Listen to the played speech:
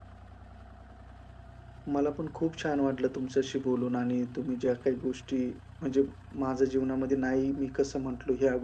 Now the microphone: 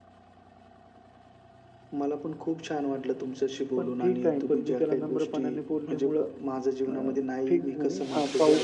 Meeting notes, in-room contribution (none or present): present